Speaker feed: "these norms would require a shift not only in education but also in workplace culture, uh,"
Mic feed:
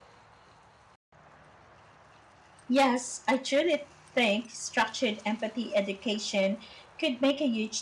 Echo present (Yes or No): No